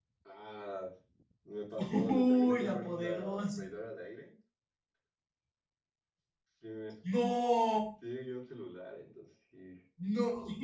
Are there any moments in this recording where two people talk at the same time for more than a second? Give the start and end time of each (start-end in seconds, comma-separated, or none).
1.8-3.6